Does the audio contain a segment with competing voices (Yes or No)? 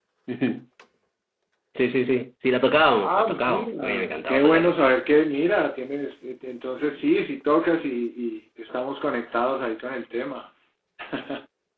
Yes